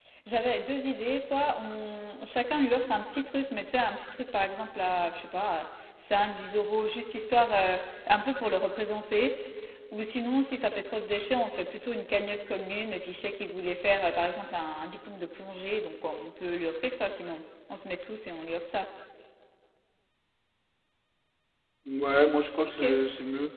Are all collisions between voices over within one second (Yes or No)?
Yes